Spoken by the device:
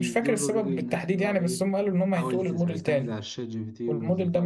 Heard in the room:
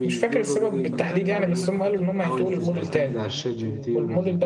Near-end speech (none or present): present